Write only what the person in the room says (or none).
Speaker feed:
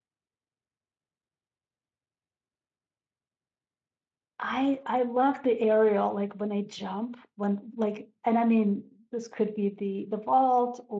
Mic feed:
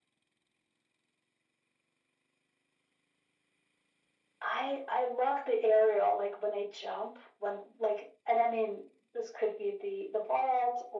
none